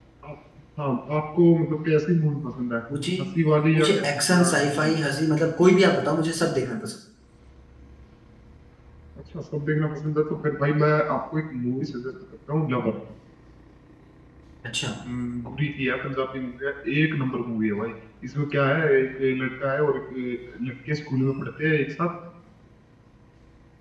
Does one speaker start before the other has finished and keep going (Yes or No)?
Yes